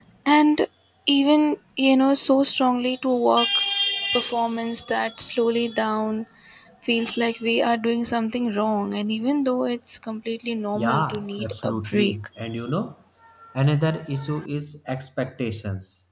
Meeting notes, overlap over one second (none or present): present